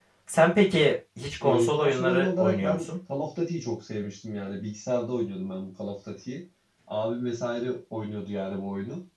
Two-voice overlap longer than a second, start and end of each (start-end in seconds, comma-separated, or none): 1.4-2.9